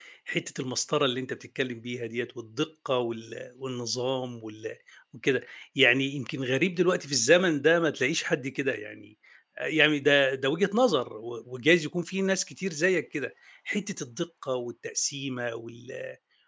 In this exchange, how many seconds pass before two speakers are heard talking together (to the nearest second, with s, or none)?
none